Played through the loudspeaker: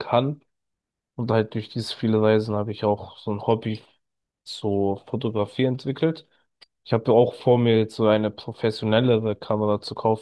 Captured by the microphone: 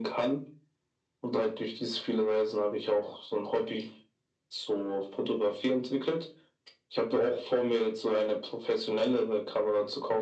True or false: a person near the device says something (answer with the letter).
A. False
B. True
A